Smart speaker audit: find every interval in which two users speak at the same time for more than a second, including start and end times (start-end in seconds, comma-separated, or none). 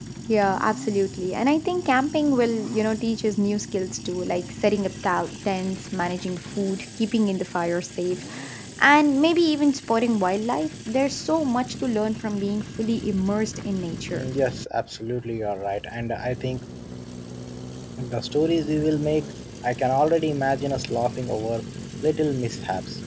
none